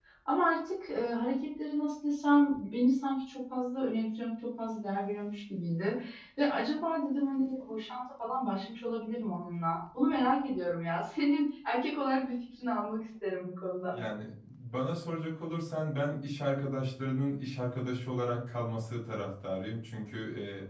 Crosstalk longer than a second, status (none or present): none